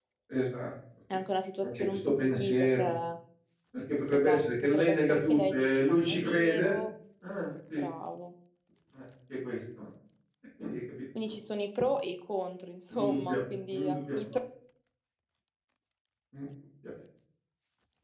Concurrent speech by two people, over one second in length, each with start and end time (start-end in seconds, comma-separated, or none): 1.6-2.9, 4.1-6.8